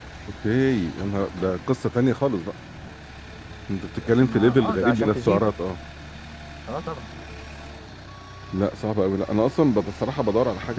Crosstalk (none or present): present